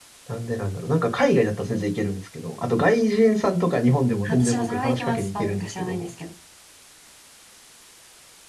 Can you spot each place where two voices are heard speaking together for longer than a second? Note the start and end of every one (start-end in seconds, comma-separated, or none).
4.3-6.1